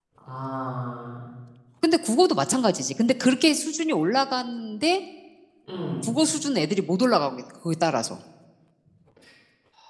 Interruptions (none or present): none